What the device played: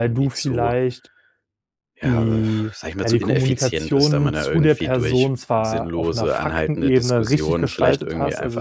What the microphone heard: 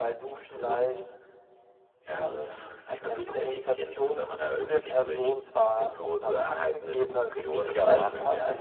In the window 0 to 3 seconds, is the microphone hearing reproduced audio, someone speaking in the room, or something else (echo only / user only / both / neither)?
echo only